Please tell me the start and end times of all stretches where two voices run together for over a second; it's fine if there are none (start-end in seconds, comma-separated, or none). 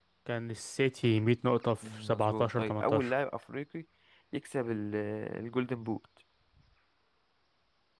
1.9-3.1